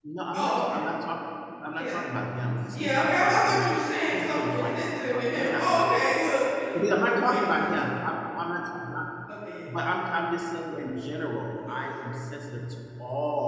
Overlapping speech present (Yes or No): Yes